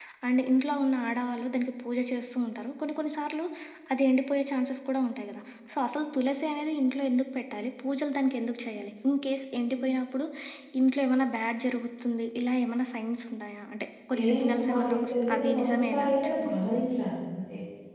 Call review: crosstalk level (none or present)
present